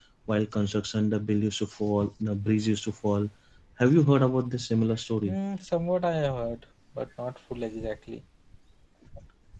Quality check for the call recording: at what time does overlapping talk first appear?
none

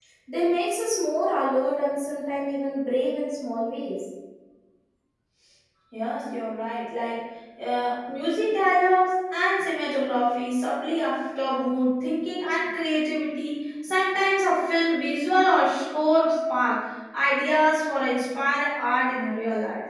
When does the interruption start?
none

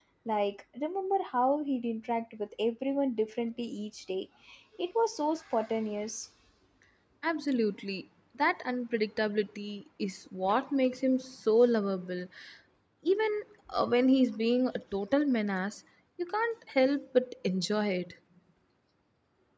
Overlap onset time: none

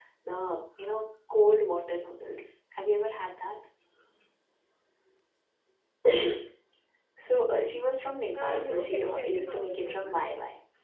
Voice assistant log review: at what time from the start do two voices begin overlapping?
8.3 s

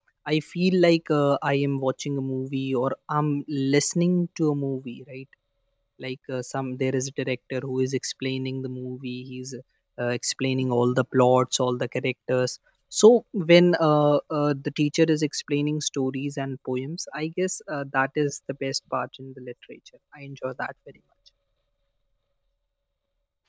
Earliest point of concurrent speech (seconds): none

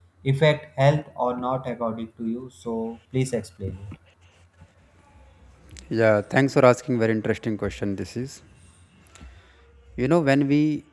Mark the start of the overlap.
none

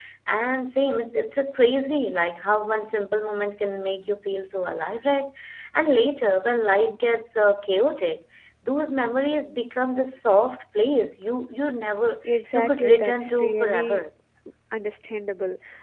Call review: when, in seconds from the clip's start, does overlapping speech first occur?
12.5 s

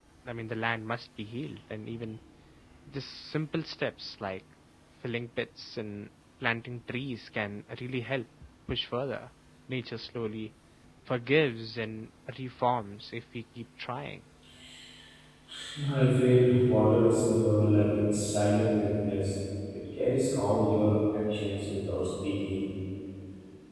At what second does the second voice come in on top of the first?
none

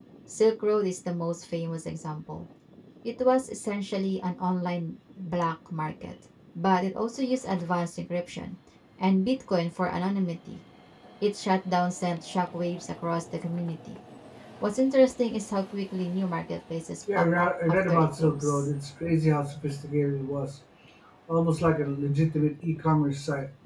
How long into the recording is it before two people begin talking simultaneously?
17.1 s

